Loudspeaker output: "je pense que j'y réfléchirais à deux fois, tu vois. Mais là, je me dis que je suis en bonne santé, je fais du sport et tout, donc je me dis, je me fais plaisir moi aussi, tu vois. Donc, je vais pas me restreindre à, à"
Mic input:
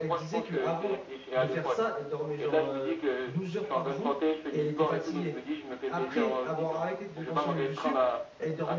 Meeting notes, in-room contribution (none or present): present